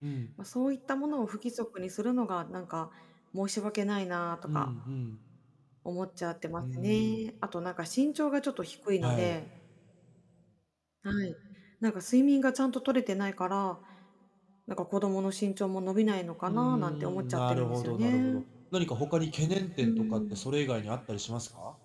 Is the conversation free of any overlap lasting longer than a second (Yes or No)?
No